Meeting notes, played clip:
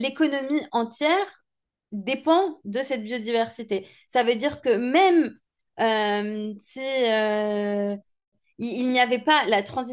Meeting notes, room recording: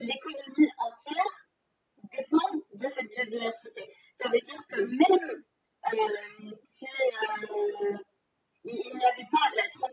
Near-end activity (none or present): none